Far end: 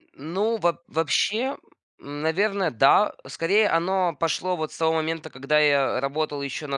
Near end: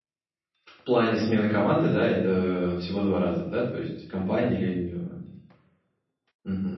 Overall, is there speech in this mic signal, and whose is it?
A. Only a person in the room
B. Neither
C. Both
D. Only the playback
A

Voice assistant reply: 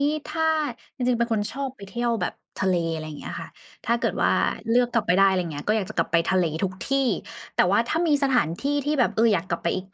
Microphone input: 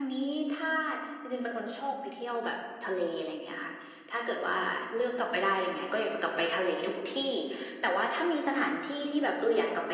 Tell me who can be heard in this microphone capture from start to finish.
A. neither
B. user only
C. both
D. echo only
D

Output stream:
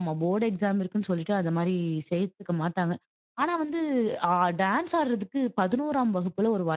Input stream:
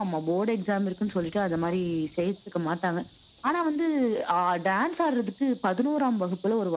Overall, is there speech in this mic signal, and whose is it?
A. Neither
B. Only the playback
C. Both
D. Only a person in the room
B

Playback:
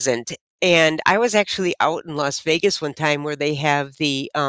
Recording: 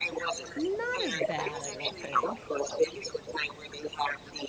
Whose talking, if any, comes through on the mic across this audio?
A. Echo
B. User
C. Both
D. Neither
C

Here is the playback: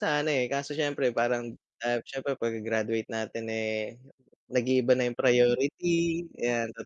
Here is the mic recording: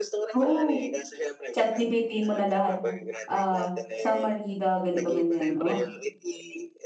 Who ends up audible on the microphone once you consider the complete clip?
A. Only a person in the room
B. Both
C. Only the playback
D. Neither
B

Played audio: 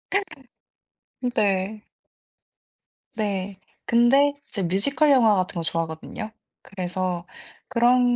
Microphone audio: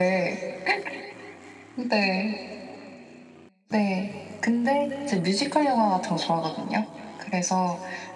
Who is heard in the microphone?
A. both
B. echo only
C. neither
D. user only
B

